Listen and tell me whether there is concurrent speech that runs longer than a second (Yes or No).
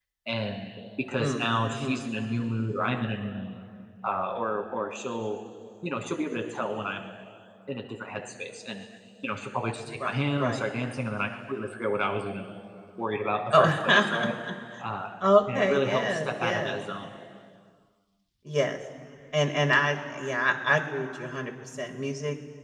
Yes